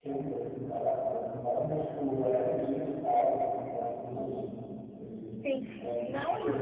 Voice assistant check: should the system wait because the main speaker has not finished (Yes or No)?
No